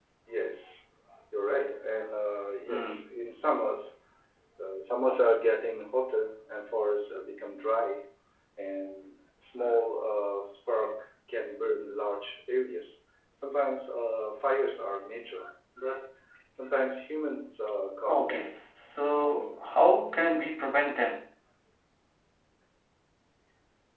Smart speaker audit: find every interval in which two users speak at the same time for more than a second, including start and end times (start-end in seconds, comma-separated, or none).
none